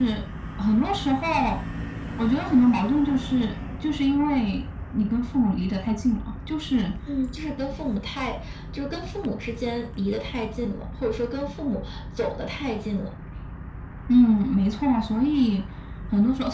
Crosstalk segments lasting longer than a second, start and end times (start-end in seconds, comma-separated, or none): none